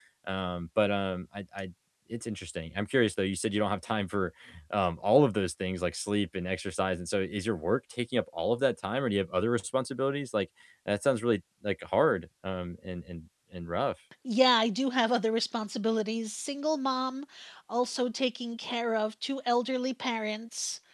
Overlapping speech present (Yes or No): No